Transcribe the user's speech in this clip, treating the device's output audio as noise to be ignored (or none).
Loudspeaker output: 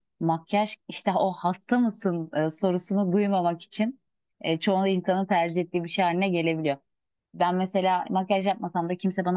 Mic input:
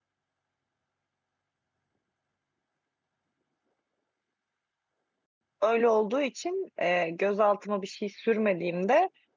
Öyle olduğu için e, göz altıma bir şey sürmediğimde